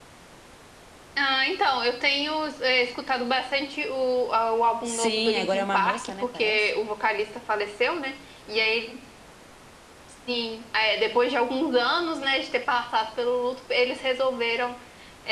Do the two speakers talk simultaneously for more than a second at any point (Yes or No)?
Yes